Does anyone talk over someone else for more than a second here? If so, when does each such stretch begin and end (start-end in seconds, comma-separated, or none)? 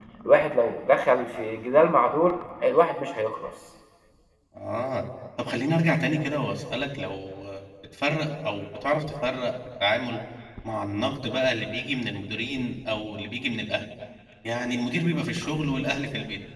none